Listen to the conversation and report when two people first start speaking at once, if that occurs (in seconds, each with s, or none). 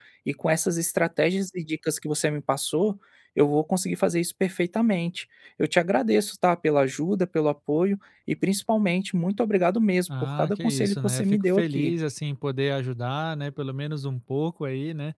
10.4 s